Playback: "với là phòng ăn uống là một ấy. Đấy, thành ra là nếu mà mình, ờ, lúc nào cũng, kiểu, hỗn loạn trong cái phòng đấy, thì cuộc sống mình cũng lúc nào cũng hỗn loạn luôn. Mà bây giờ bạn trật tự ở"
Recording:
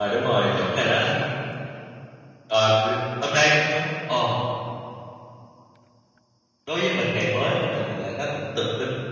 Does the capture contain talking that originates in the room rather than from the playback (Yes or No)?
Yes